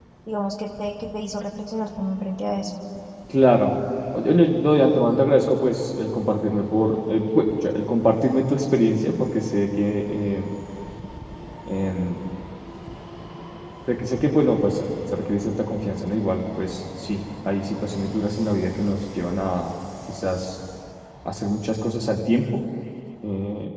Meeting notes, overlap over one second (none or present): none